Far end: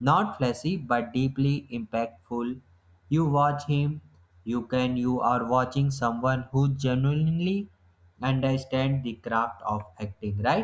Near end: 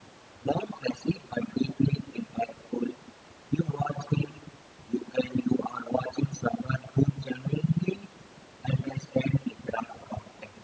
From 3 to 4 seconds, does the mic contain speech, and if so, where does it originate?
echo only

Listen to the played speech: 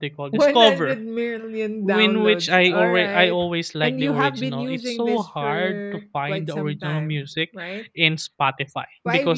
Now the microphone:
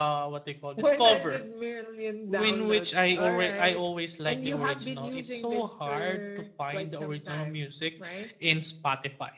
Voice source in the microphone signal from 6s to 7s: echo only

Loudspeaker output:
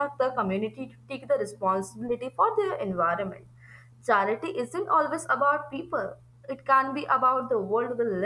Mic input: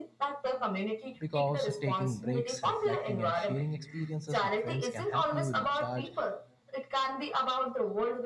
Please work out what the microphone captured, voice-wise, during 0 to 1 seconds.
echo only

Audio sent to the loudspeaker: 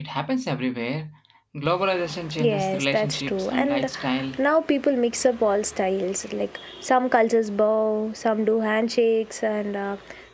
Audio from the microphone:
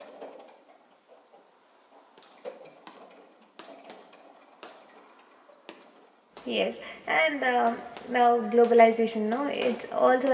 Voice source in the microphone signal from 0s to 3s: neither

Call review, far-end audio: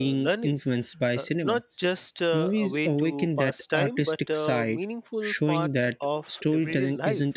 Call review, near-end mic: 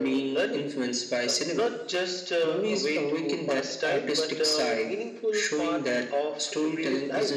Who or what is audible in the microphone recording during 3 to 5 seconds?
echo only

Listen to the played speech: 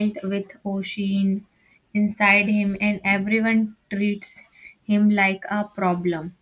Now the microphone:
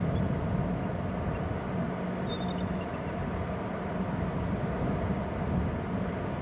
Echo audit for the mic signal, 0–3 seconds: neither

